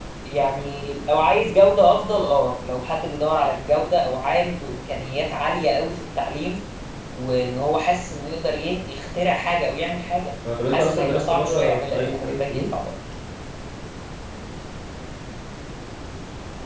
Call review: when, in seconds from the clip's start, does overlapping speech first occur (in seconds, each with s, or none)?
10.4 s